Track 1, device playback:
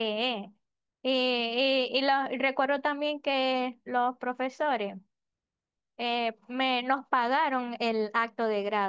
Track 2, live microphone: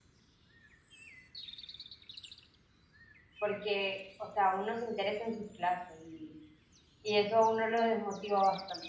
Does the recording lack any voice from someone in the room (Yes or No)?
No